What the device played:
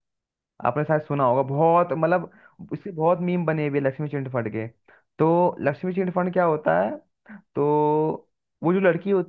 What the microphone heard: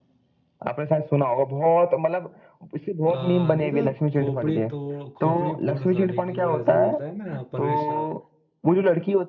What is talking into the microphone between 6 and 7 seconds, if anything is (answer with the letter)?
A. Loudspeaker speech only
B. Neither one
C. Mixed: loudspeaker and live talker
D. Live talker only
C